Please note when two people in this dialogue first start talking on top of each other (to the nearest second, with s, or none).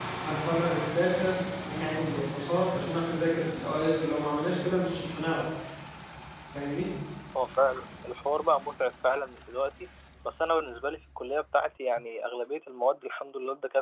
none